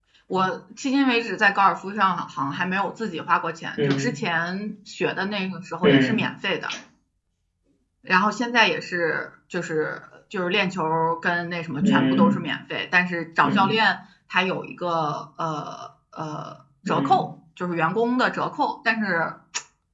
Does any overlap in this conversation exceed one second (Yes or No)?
No